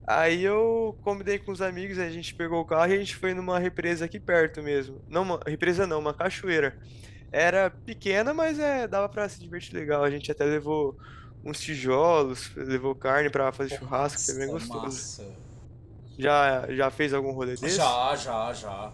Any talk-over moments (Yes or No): Yes